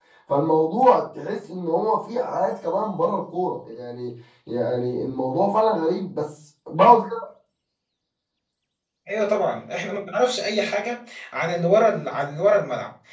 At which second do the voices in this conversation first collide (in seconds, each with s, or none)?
none